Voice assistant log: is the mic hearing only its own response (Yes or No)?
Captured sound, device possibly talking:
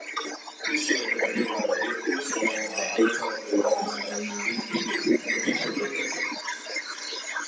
No